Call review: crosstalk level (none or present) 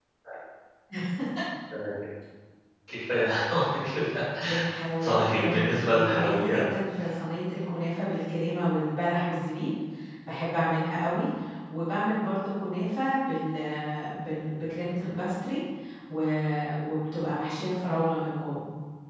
present